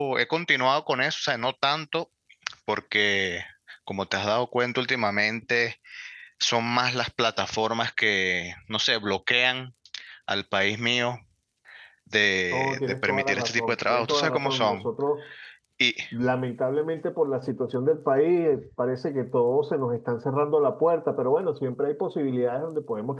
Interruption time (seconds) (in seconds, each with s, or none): 12.5 s